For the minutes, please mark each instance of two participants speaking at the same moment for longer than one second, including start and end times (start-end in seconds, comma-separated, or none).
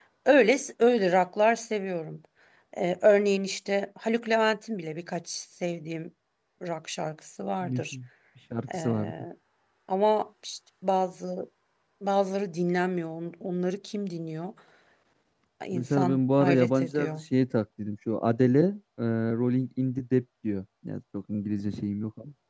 15.7-17.2